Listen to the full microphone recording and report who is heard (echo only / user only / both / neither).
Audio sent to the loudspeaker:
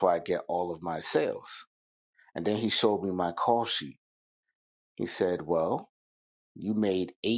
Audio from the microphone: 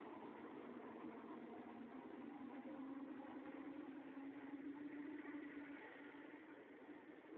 neither